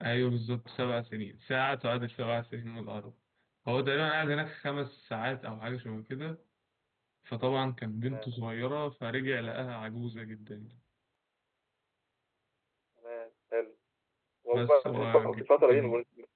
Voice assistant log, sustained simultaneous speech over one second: present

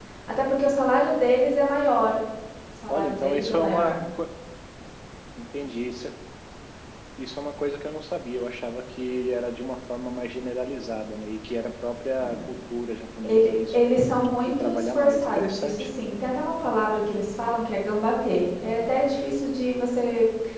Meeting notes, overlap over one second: present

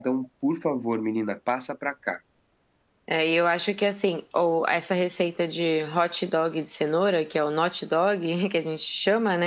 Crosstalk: none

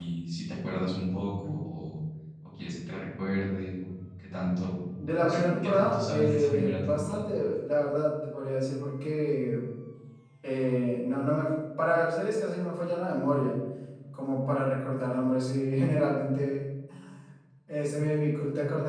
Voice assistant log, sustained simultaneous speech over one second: present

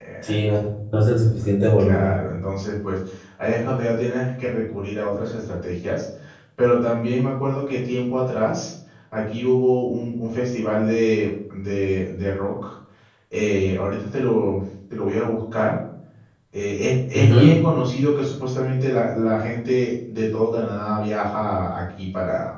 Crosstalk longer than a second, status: none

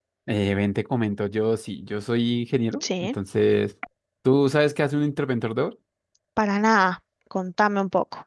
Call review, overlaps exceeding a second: none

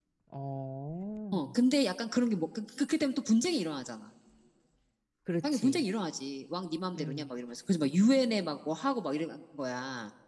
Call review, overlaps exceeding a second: none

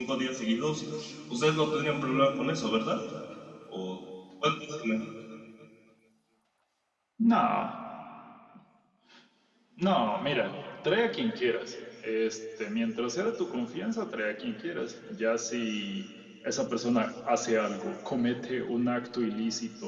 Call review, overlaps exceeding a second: none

